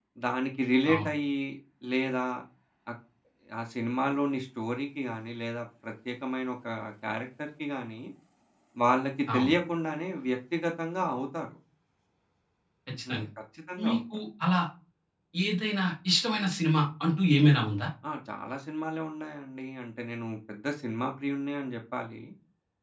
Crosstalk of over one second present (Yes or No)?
No